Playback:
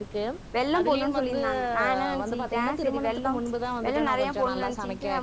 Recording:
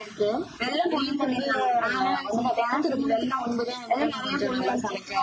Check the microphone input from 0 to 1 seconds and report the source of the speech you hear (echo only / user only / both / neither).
echo only